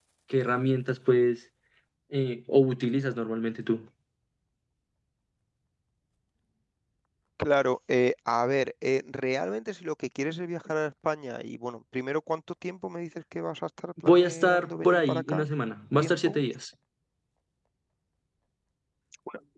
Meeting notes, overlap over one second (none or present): present